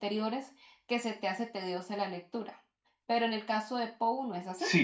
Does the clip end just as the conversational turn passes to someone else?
Yes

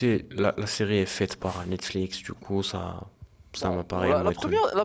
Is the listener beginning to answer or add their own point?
Yes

